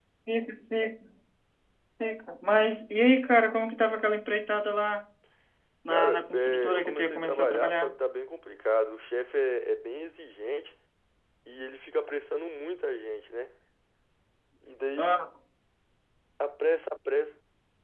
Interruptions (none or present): present